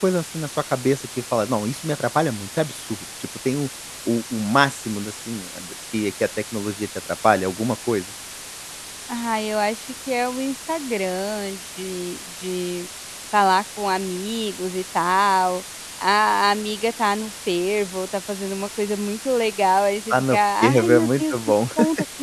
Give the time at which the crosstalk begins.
20 s

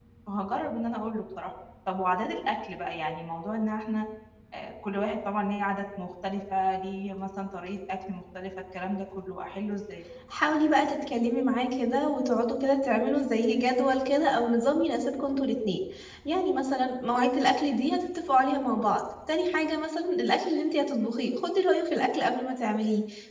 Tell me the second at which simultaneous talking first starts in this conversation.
none

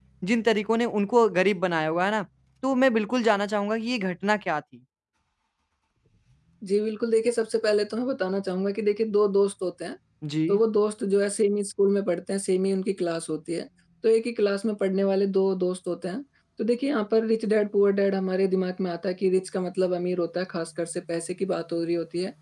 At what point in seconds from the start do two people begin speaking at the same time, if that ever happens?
none

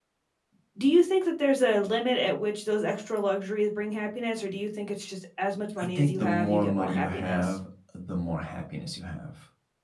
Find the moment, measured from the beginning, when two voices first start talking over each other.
6 s

